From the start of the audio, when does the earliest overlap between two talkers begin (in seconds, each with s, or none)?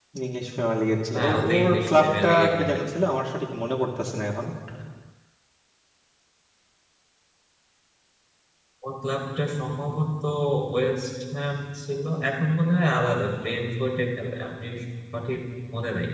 1.1 s